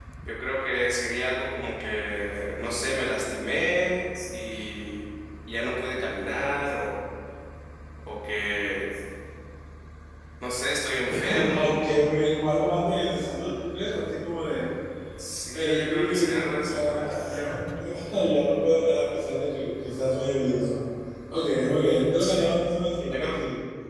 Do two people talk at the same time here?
Yes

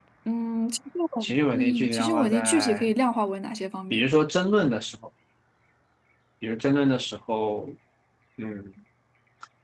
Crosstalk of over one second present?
Yes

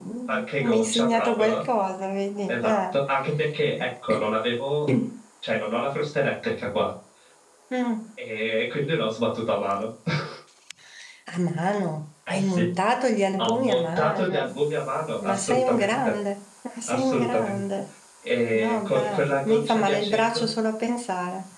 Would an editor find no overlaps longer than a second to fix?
No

